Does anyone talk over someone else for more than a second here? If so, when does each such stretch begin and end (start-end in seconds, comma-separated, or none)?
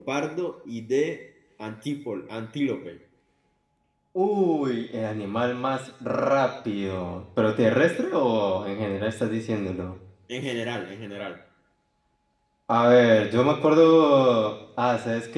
none